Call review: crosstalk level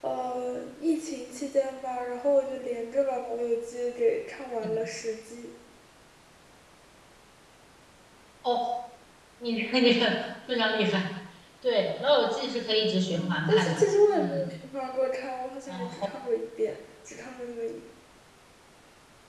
present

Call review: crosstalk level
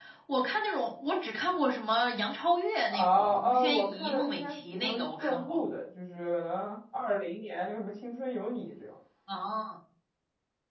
present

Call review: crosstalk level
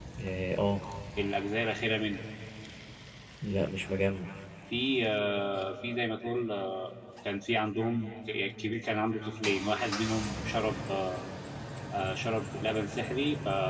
none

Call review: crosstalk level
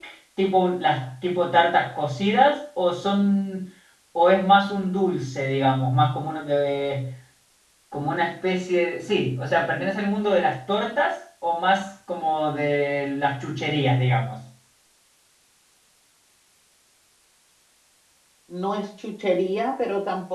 none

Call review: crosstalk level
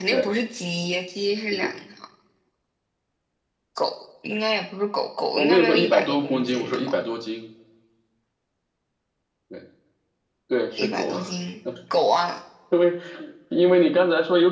present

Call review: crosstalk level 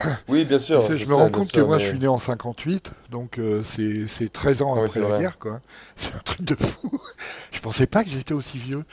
present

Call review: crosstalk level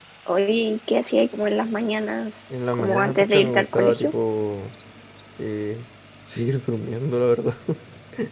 present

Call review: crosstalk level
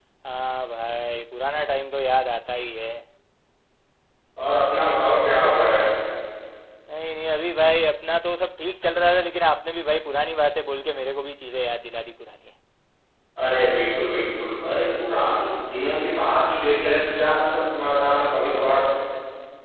none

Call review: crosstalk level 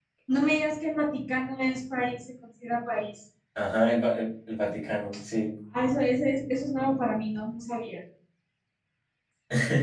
none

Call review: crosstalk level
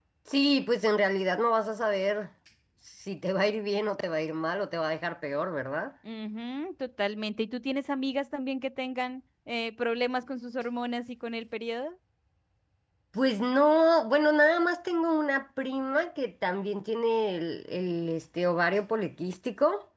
none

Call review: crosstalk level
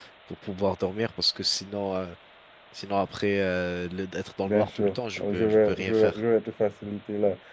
present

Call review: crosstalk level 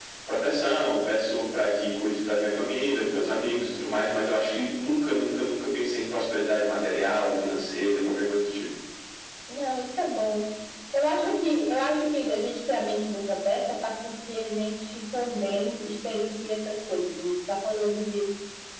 none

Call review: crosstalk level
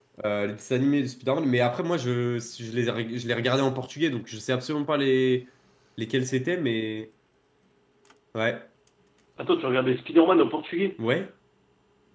none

